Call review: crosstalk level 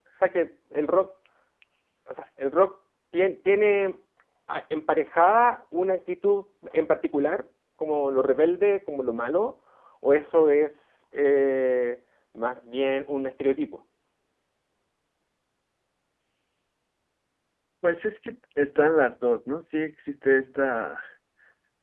none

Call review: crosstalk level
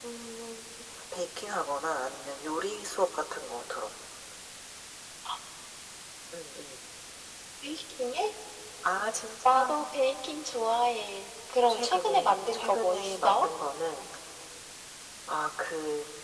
present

